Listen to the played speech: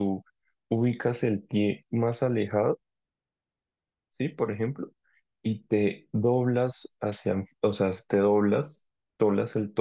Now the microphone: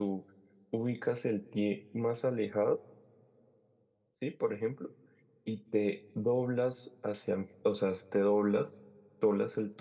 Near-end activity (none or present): none